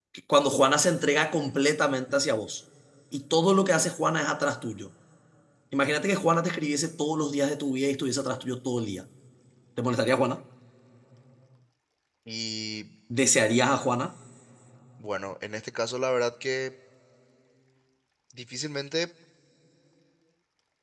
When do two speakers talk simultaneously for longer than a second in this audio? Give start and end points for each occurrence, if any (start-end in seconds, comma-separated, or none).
none